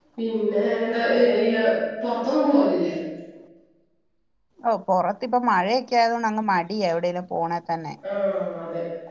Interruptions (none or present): none